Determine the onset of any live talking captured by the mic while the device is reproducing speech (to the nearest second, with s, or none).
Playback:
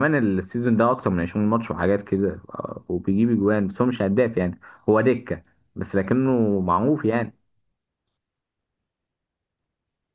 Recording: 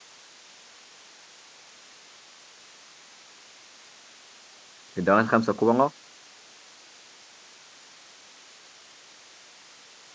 5 s